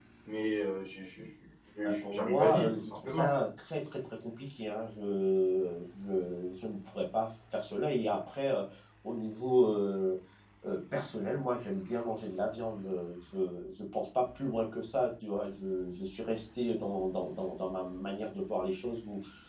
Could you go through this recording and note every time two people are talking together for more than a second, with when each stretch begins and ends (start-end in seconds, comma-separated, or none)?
1.8-3.3